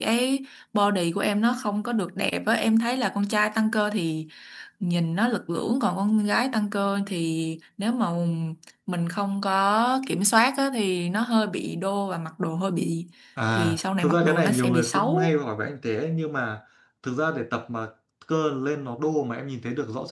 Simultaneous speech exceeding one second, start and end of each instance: 13.5-15.3

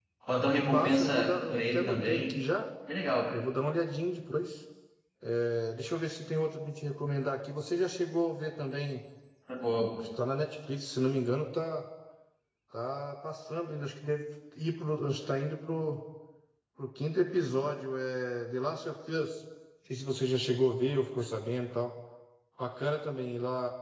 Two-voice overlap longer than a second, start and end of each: 0.6-2.3

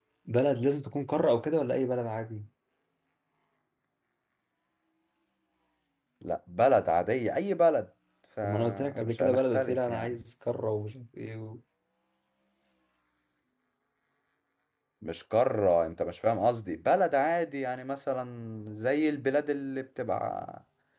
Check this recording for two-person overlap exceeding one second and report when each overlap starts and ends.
8.4-10.2

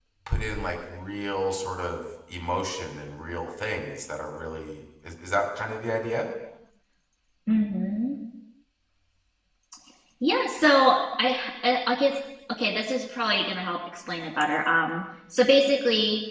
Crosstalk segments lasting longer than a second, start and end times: none

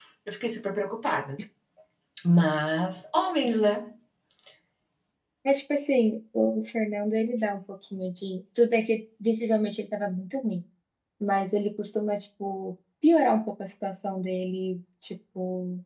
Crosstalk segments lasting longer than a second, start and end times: none

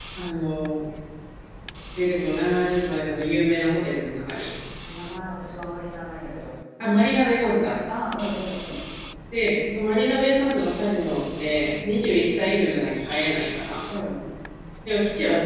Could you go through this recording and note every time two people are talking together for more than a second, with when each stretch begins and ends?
none

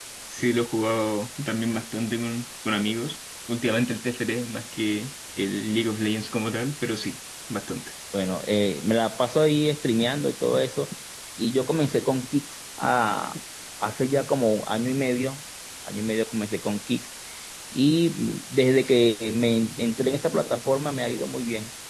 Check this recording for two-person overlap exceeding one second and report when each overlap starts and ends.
none

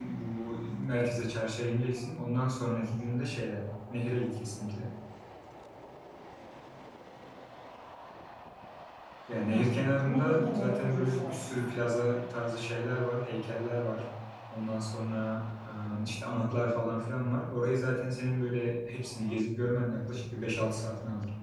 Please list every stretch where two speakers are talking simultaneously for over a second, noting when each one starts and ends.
9.3-11.8

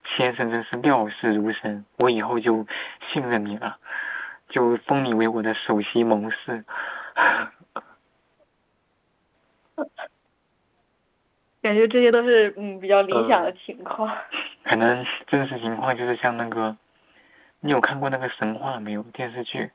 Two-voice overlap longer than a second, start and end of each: none

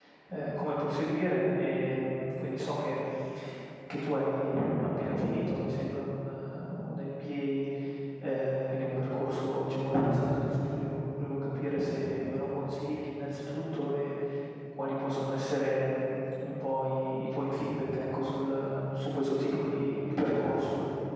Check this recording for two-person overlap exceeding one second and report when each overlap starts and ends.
none

